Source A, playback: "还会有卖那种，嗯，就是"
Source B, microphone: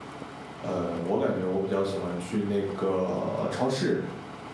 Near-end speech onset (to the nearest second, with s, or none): 1 s